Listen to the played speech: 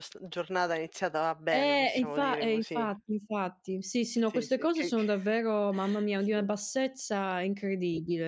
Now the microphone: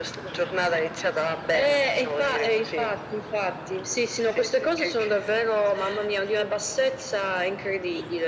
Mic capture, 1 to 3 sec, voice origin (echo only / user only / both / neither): echo only